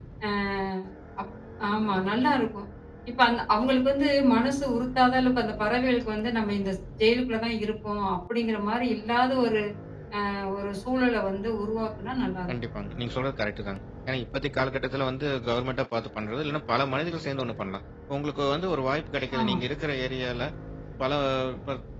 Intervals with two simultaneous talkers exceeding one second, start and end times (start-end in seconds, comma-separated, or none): none